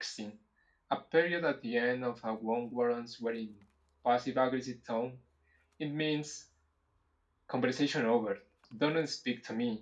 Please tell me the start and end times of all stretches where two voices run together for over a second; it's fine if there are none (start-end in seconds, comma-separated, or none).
none